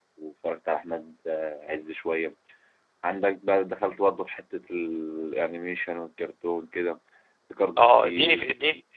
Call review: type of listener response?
taking over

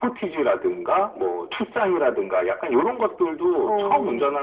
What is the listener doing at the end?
listening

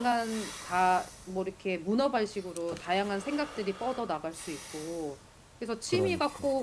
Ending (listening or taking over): listening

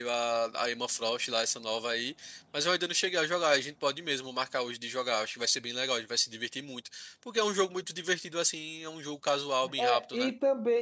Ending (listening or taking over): taking over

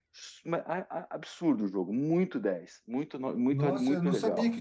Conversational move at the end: taking over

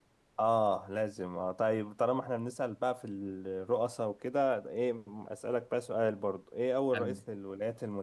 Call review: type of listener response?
listening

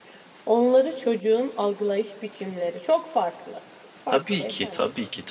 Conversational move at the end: taking over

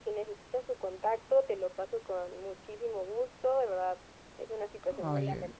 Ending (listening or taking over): listening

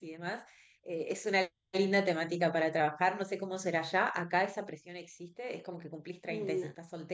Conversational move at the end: listening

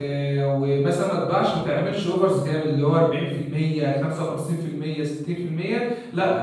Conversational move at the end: listening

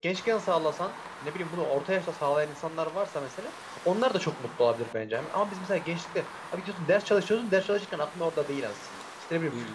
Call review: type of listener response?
listening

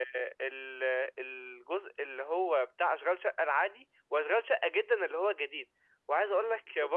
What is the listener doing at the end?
listening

